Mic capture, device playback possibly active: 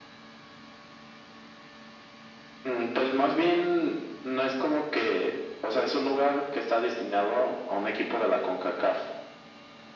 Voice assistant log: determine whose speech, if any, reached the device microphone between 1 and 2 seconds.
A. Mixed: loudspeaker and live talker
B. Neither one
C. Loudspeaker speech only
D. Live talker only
B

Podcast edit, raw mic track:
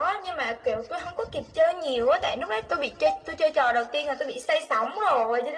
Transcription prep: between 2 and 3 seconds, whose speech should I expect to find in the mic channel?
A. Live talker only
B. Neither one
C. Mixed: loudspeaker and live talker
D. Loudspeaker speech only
D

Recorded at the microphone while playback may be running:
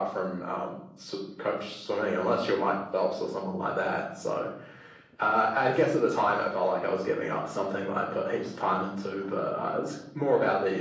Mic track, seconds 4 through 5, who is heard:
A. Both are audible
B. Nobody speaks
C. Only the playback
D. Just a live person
C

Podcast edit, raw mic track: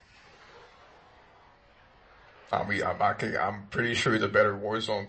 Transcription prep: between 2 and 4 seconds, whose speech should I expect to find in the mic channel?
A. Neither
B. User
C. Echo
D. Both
B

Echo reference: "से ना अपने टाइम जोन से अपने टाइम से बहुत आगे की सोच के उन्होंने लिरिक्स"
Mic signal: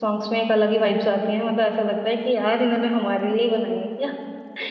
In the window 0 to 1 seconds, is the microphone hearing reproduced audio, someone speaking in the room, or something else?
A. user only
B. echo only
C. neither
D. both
A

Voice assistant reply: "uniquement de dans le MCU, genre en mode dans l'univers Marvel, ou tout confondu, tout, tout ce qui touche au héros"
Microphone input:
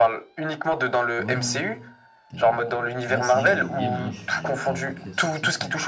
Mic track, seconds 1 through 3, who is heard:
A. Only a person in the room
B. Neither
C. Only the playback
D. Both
D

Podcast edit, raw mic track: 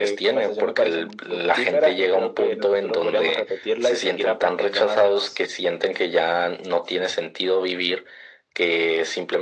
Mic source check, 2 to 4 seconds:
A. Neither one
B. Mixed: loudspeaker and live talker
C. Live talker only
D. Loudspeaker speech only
D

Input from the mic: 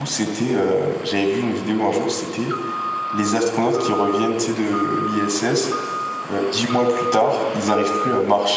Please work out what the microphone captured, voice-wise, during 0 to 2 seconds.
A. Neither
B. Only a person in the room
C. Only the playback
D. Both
B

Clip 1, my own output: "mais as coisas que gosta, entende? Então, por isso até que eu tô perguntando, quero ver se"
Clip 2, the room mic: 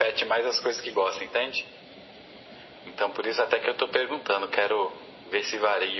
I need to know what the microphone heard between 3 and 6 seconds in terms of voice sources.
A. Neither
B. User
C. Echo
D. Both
C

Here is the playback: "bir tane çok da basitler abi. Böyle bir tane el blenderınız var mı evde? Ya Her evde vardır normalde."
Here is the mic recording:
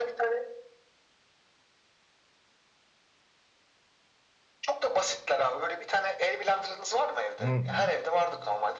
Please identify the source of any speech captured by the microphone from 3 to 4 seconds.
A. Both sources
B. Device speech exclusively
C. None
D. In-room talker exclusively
C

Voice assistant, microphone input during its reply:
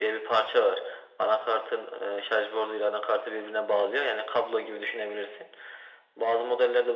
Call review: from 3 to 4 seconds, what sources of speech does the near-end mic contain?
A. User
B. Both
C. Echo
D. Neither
C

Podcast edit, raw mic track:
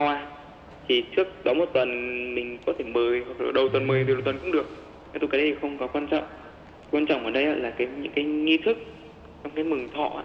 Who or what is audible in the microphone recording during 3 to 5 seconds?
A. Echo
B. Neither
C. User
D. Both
D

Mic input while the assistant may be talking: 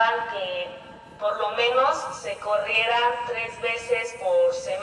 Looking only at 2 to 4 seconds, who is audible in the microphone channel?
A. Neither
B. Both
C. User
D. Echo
D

